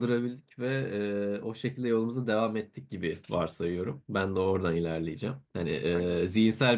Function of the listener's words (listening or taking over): listening